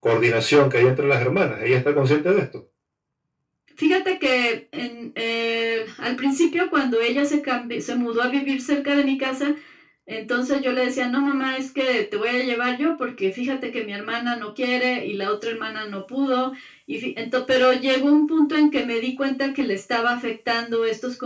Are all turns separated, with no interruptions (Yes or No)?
Yes